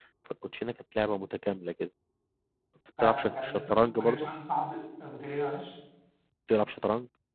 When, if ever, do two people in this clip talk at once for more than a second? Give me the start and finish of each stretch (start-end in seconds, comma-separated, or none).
3.0-4.3